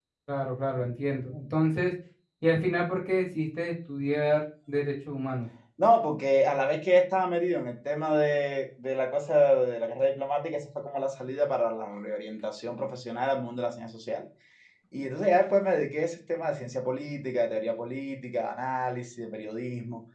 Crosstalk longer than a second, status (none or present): none